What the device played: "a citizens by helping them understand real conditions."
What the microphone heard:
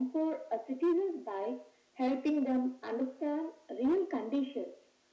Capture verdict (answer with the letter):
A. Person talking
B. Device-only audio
B